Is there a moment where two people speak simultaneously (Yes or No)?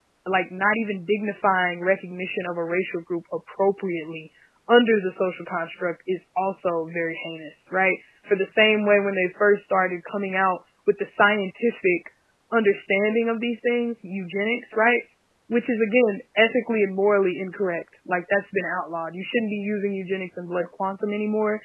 No